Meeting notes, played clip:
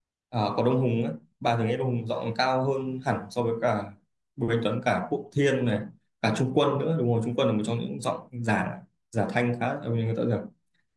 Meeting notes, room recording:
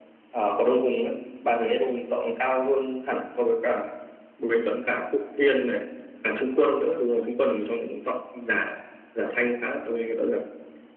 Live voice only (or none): none